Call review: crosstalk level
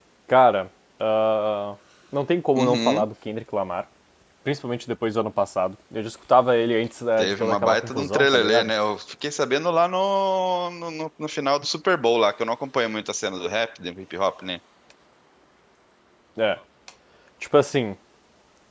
present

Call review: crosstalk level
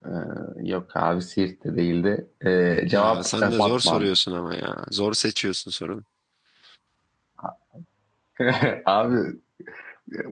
present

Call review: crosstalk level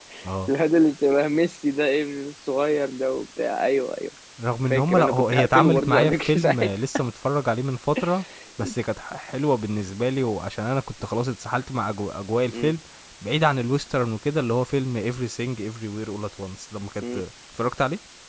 present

